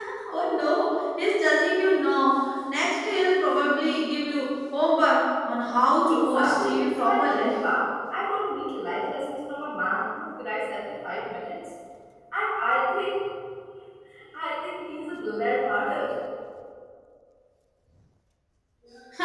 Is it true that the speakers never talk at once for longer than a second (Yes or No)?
No